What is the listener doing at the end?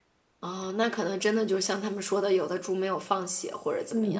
taking over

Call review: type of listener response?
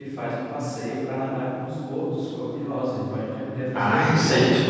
taking over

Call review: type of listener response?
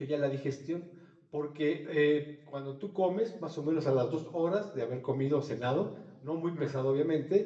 listening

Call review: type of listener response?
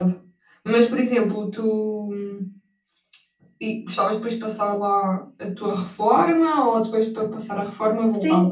taking over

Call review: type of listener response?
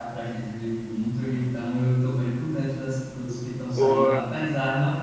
listening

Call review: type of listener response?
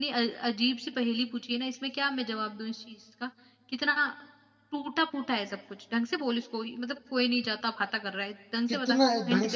taking over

